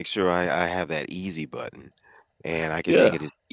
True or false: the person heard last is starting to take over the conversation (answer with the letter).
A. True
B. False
B